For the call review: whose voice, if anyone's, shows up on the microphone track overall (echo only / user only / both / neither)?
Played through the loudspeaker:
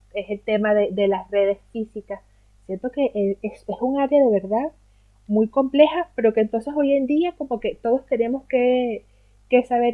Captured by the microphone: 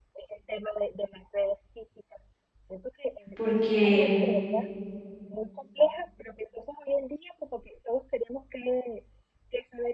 both